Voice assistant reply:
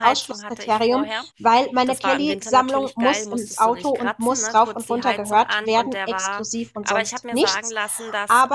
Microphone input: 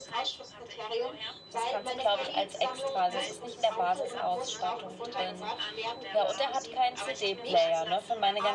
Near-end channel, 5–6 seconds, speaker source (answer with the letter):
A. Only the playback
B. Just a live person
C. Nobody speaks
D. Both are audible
D